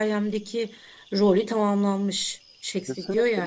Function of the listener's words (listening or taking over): listening